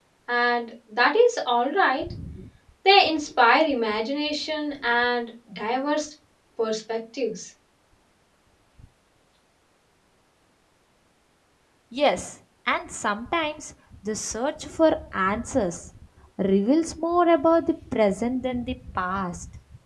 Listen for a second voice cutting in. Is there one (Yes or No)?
No